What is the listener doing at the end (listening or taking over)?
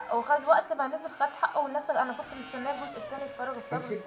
taking over